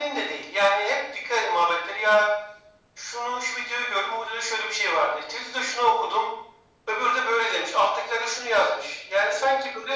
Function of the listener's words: listening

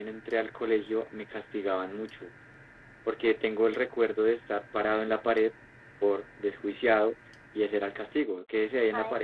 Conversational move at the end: taking over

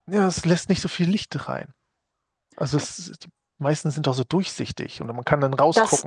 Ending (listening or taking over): taking over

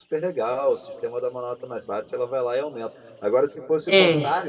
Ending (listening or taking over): listening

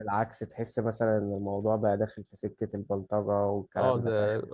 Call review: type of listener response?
taking over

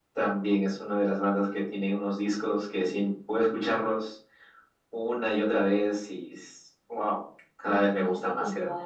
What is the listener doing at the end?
taking over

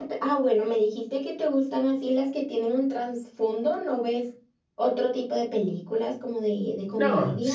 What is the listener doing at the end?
taking over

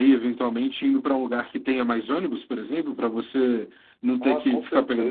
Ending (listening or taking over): taking over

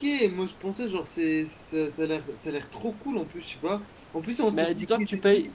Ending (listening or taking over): taking over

